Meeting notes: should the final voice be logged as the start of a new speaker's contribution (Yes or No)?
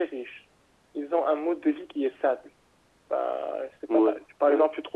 No